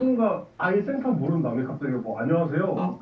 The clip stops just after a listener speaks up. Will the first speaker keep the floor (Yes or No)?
Yes